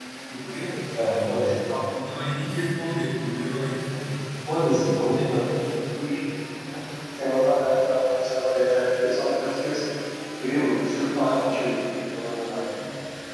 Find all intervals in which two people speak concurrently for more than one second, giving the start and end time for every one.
none

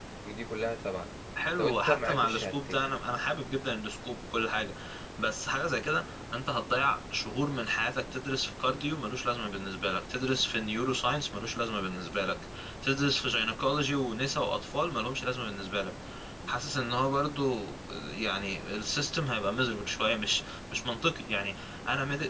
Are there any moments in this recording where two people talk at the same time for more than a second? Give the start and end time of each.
1.6-2.8

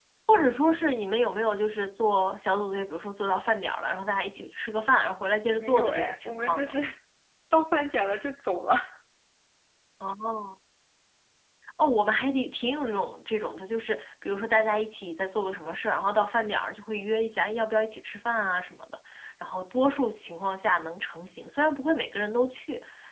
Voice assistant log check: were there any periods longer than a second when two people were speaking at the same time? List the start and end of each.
5.5-6.7

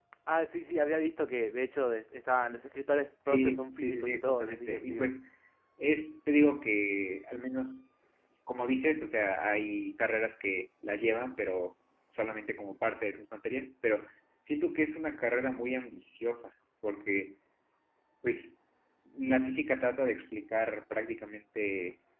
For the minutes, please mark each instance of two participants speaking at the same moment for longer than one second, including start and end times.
3.3-5.1

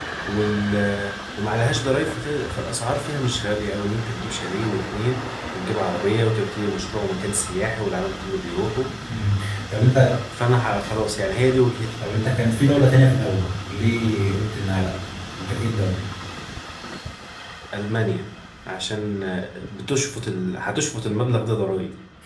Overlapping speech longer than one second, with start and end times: none

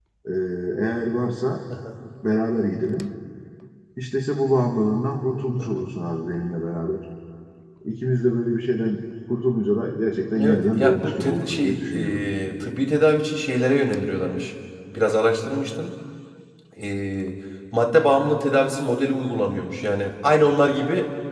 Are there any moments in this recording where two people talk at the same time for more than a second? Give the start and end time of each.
10.4-12.3

